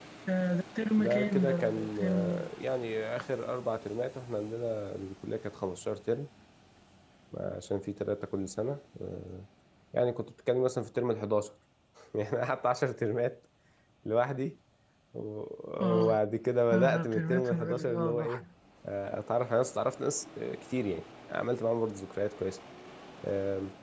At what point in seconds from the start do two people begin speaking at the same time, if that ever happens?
1 s

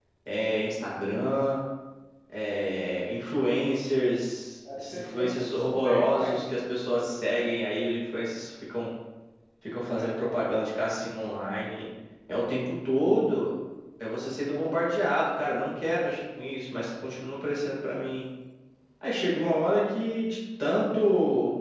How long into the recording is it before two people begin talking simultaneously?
5 s

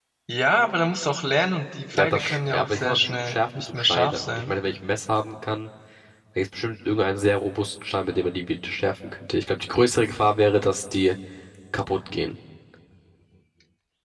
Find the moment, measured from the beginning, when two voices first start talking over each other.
2 s

